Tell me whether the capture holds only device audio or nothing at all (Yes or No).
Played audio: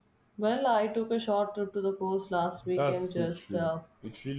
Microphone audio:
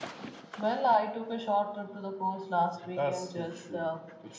Yes